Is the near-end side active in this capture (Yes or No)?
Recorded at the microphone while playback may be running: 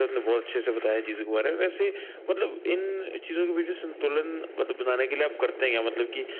No